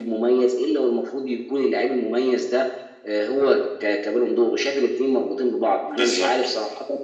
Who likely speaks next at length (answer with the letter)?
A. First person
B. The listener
A